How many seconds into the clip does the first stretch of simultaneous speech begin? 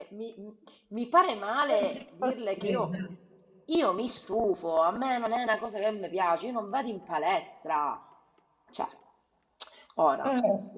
1.7 s

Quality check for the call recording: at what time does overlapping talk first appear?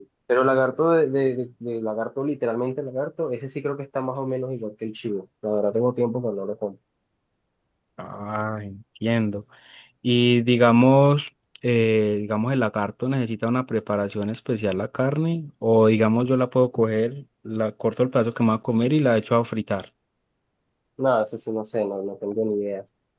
none

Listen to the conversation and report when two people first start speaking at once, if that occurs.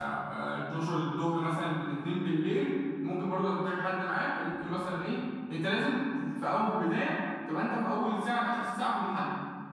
none

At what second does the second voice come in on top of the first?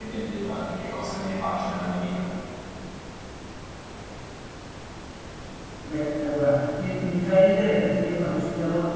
none

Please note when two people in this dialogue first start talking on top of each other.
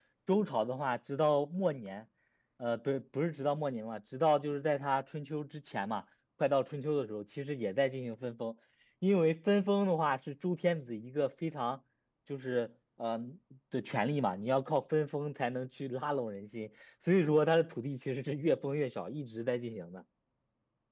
none

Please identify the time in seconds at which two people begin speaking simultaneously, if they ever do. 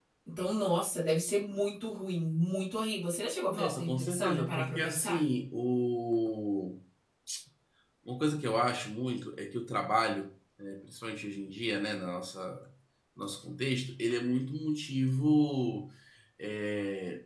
3.5 s

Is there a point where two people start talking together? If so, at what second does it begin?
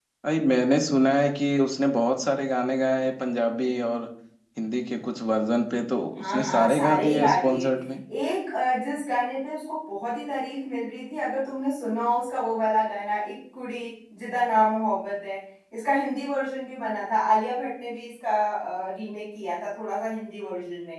6.2 s

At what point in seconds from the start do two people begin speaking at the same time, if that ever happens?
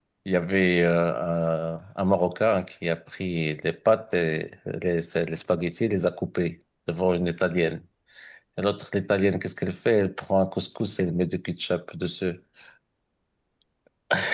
none

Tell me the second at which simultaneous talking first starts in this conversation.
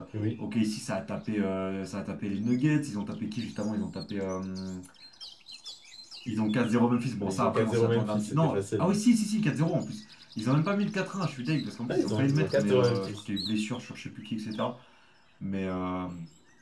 7.3 s

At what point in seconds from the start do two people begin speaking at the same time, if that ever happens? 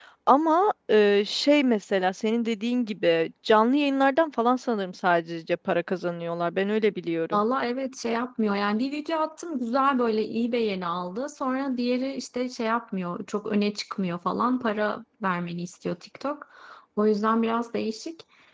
none

